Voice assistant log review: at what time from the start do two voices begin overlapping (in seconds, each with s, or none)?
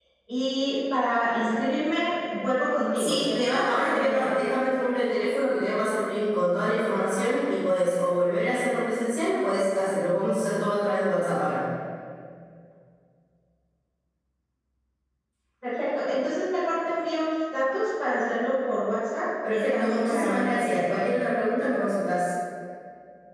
3.0 s